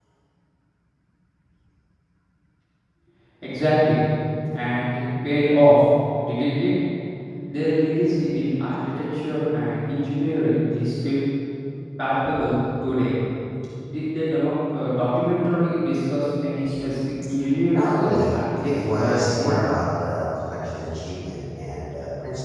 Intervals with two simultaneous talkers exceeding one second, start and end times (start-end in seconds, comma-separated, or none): 17.7-19.6